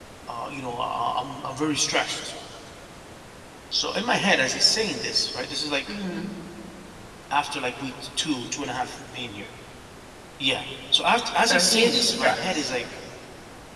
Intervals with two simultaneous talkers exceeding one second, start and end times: 11.5-12.7

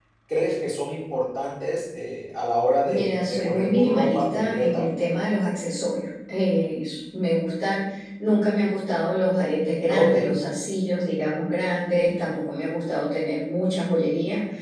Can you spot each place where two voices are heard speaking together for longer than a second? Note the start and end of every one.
2.8-4.8

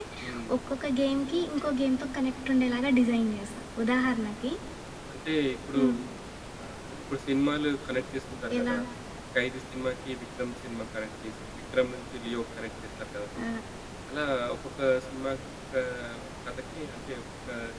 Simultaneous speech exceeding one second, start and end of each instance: none

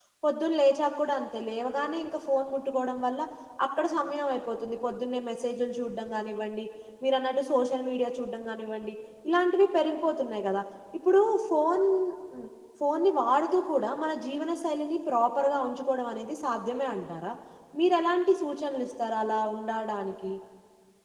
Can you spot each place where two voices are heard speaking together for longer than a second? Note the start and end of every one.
none

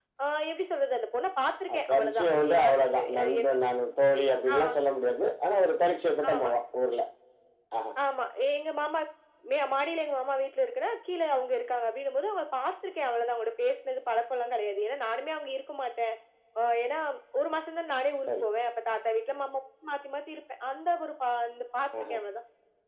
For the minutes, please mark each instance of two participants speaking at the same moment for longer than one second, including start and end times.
1.7-3.5

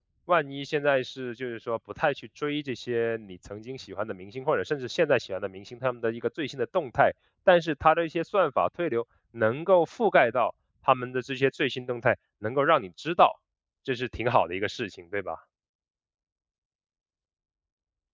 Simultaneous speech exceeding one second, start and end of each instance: none

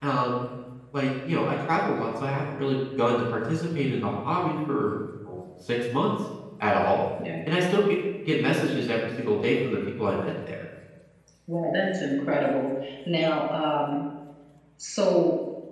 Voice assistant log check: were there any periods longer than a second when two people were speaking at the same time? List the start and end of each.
none

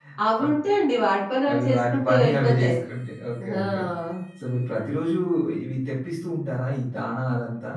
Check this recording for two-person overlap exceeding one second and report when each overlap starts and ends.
1.5-2.8

